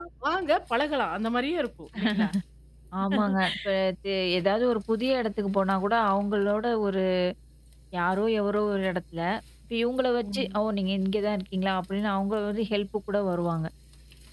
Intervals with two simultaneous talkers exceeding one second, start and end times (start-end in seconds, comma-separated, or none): none